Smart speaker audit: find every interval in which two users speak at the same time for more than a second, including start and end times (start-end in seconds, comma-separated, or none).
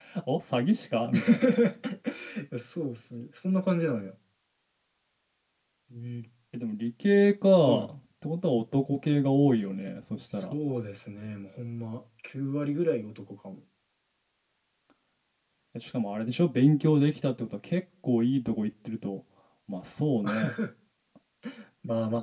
none